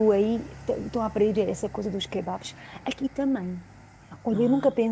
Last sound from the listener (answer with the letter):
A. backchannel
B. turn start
A